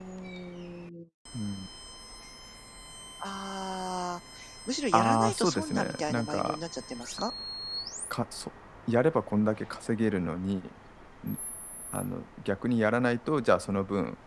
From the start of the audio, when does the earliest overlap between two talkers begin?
4.9 s

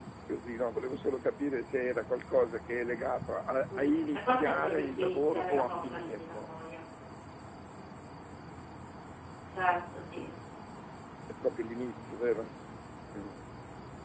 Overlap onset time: 3.7 s

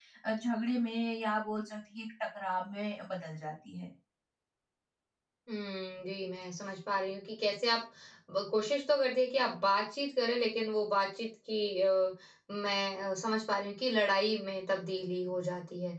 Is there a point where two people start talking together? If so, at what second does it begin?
none

